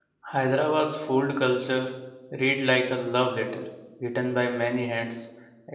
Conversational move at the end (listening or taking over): listening